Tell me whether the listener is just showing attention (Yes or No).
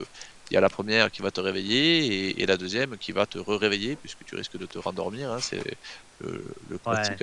Yes